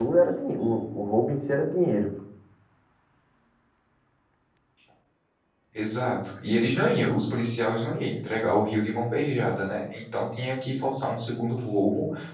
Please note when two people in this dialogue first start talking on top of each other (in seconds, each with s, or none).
none